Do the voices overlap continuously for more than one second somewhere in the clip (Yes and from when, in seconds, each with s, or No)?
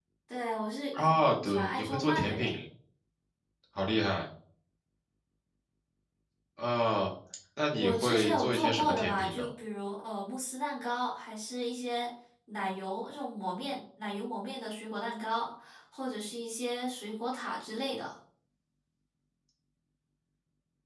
Yes, from 0.9 s